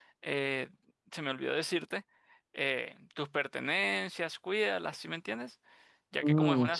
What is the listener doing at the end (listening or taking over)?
listening